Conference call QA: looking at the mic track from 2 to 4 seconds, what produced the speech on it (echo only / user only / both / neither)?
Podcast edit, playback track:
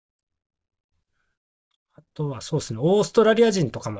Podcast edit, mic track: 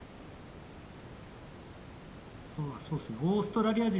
echo only